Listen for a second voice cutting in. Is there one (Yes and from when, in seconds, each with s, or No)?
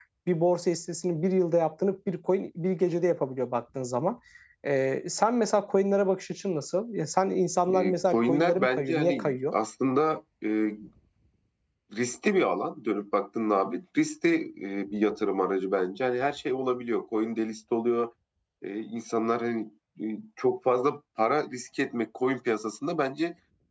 Yes, from 7.7 s